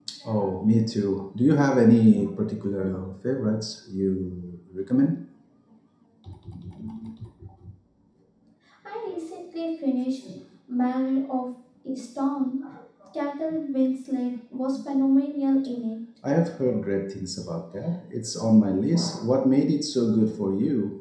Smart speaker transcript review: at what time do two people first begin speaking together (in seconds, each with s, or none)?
none